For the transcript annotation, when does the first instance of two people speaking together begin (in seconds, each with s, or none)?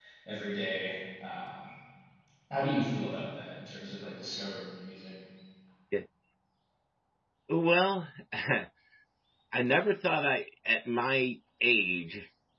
none